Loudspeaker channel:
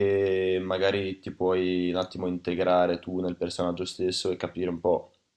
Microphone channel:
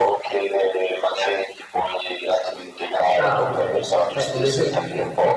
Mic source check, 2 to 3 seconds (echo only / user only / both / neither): echo only